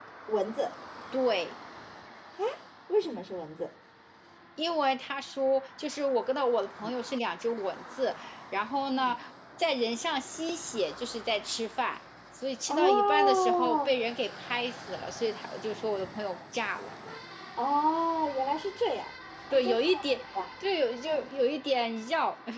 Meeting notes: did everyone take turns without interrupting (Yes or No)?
No